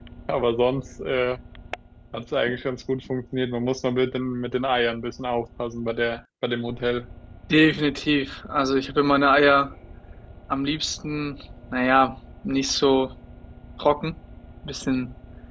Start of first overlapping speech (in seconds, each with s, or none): none